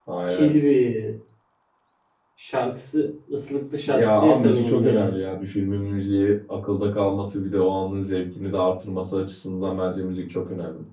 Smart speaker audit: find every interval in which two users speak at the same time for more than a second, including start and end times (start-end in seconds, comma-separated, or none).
3.9-5.2